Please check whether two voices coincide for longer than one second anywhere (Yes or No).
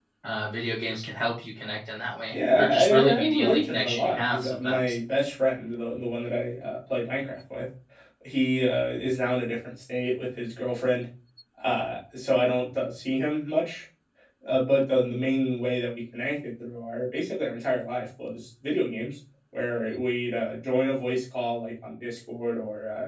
Yes